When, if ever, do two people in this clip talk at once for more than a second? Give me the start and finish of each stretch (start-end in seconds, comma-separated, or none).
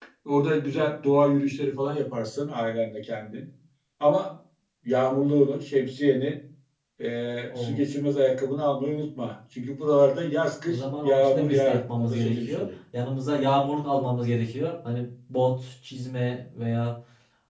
10.7-12.6